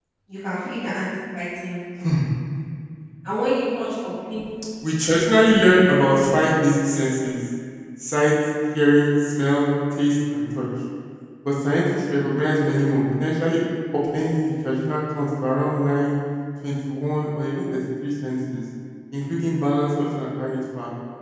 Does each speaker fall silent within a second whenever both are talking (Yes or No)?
Yes